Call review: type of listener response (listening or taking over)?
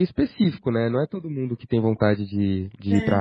listening